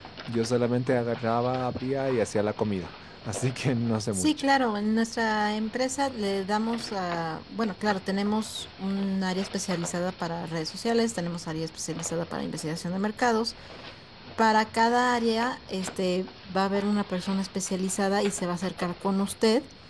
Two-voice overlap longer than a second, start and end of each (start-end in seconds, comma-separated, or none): none